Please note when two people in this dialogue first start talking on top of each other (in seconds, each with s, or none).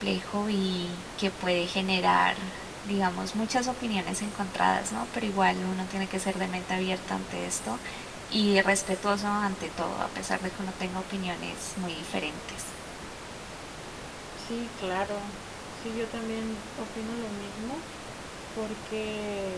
none